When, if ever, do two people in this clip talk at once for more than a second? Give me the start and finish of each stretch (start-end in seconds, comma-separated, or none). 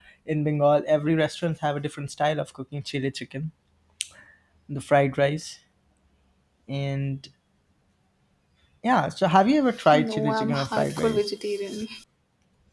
9.9-11.2